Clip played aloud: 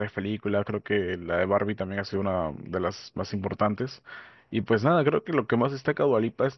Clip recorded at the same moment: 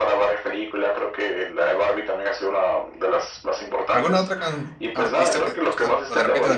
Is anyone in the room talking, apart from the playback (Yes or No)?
Yes